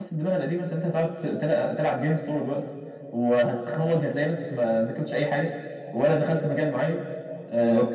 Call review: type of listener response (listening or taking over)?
listening